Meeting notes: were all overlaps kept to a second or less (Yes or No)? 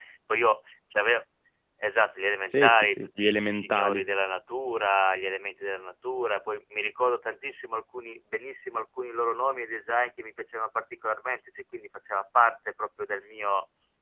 No